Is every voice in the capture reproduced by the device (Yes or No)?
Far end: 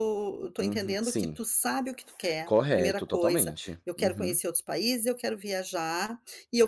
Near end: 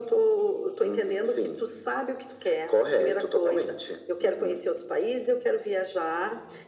Yes